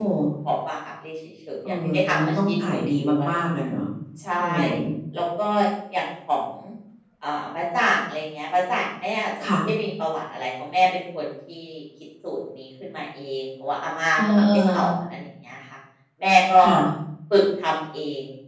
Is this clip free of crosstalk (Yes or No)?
No